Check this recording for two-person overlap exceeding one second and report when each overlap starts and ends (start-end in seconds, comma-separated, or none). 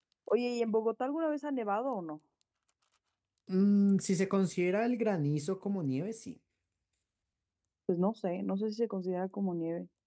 none